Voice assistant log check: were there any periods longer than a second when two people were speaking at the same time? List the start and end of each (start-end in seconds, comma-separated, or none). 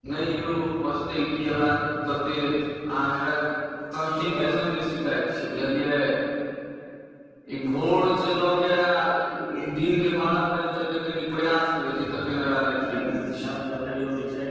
12.2-13.6